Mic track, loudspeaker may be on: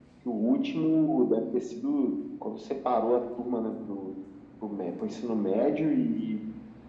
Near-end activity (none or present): none